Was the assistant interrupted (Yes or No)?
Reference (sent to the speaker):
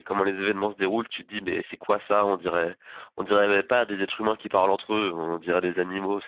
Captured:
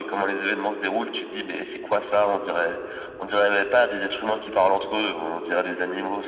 No